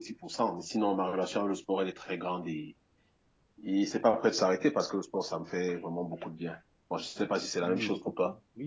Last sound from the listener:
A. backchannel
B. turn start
B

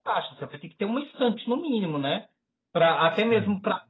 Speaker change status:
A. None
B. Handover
A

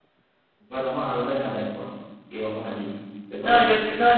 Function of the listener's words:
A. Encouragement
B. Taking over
B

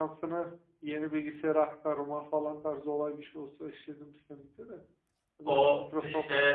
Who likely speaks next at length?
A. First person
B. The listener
B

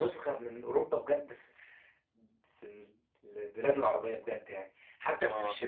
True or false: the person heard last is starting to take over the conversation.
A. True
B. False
B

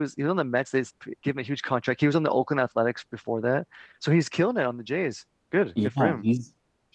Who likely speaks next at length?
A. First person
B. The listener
B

